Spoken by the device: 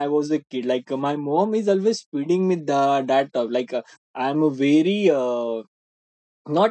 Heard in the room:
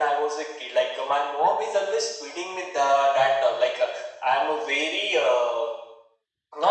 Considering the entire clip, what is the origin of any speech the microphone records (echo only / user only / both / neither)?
echo only